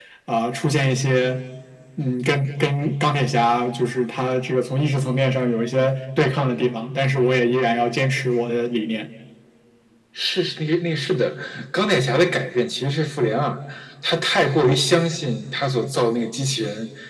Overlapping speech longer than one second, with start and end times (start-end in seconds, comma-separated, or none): none